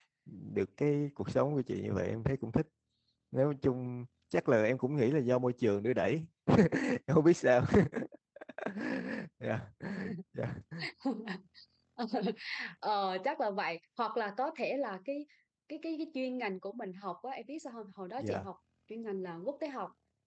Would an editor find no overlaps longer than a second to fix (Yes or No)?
Yes